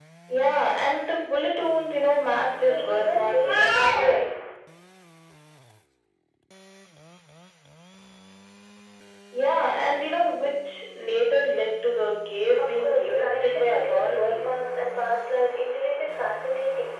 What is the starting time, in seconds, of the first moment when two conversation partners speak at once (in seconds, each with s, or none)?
2.6 s